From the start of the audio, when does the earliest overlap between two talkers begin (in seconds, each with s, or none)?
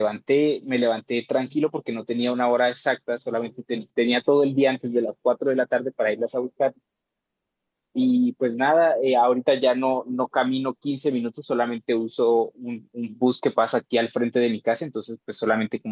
none